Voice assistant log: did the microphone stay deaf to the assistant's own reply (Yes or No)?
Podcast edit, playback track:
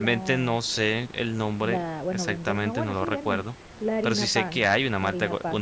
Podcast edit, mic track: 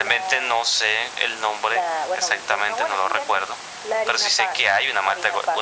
No